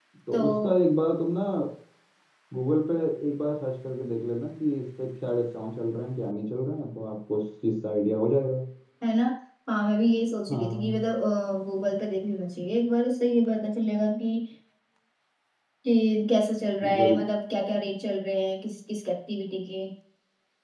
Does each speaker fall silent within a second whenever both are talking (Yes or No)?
Yes